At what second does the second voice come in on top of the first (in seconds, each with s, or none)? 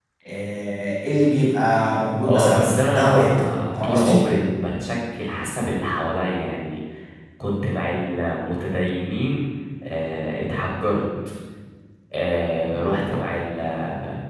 2.2 s